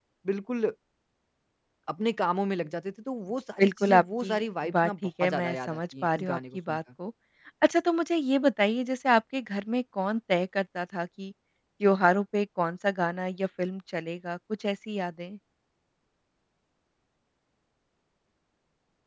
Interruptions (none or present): present